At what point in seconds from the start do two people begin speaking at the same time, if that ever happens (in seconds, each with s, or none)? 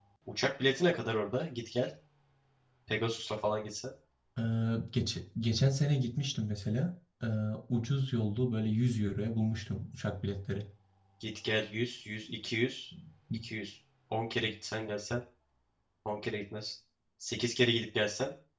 none